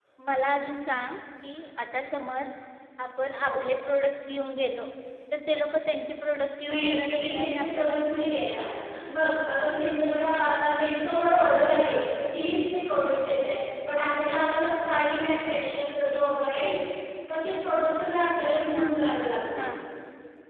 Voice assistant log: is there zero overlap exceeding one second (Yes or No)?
No